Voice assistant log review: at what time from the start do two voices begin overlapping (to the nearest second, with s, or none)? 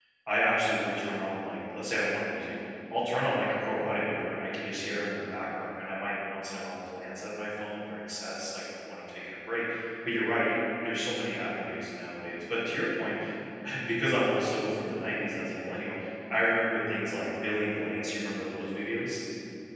none